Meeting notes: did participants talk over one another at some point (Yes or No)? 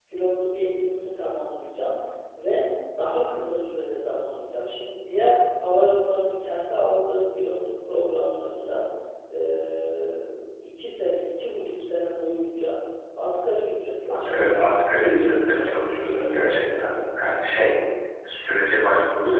Yes